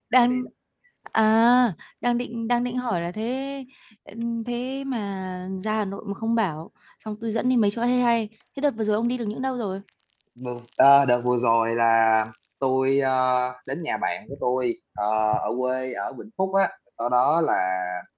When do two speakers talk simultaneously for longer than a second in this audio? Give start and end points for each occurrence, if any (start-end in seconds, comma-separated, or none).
none